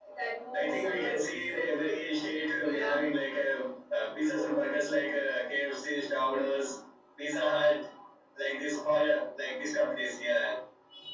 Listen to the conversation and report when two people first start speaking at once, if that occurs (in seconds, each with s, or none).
0.5 s